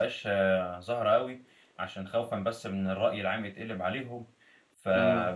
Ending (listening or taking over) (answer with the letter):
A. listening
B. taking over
A